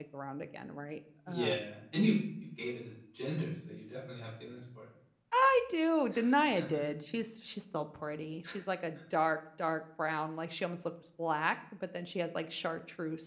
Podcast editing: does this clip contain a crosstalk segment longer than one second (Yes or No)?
No